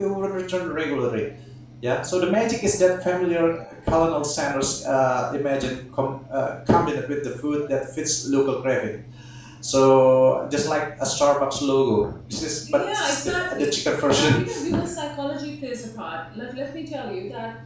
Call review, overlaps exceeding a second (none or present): present